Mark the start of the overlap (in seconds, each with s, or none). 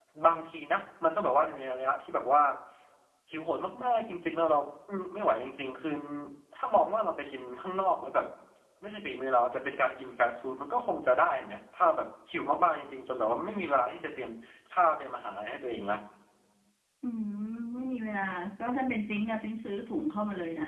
none